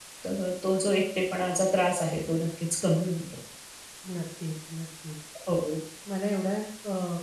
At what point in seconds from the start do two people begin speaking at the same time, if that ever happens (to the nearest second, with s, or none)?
none